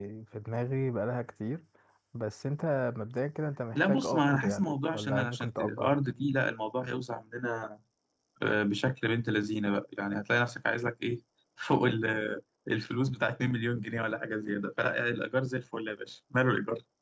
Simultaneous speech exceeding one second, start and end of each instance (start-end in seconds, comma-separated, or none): 3.8-6.0